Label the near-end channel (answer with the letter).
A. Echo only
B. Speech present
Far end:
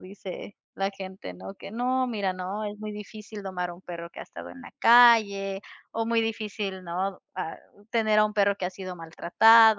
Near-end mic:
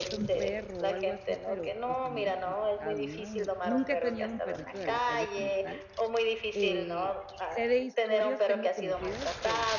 B